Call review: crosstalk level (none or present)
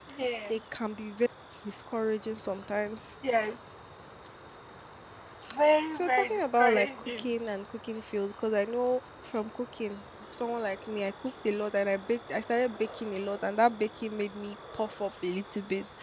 present